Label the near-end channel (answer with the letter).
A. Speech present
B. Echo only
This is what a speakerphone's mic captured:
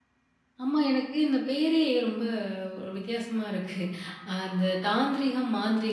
A